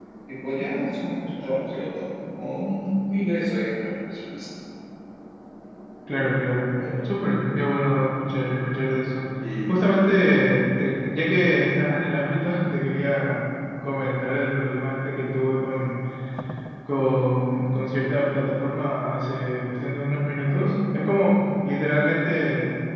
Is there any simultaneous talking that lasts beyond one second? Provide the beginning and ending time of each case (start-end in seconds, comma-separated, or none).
none